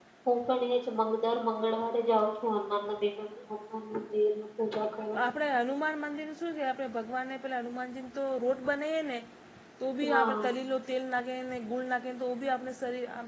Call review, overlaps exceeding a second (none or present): none